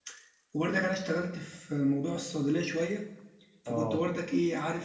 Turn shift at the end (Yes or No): No